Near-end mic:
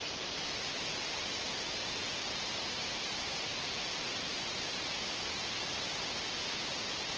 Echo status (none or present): none